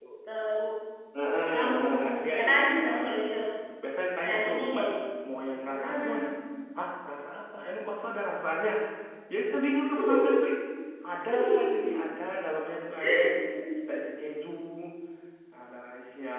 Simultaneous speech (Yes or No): Yes